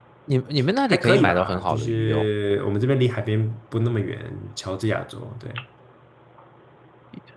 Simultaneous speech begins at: 0.9 s

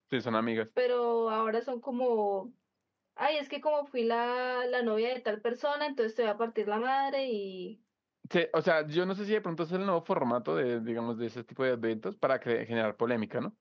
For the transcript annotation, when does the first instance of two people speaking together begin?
none

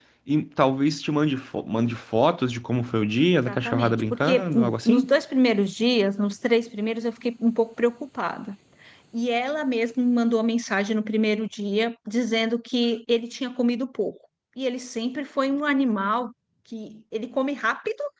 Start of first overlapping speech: 3.3 s

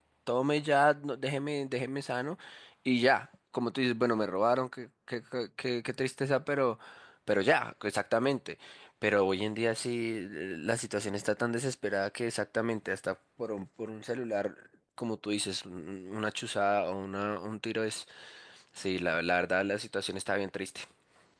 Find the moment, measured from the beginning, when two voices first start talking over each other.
none

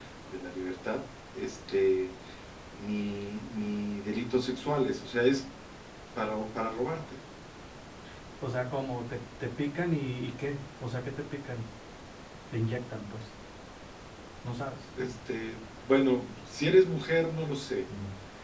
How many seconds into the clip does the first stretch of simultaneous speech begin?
none

